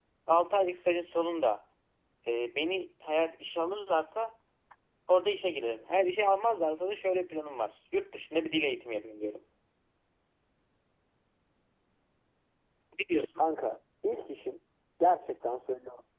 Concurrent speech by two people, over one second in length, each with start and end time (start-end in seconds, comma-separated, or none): none